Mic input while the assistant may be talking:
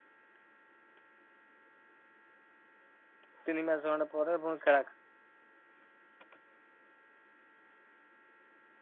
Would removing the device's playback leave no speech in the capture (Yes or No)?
No